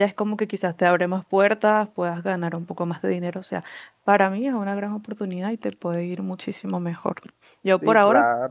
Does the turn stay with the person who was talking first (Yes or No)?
No